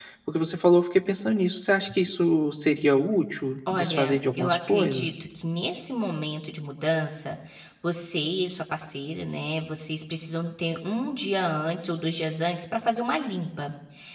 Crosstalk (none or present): present